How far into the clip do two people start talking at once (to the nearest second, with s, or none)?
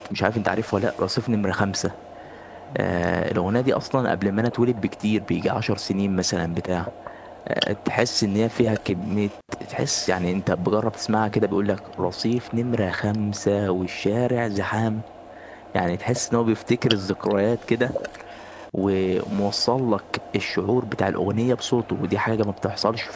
none